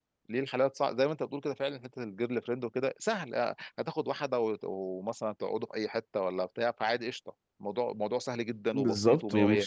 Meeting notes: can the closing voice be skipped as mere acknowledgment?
No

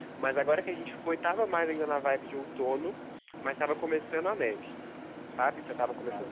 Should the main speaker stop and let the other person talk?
No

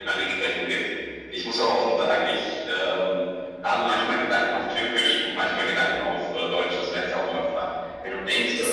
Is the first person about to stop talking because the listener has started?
No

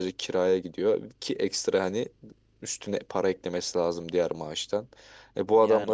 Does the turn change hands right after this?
No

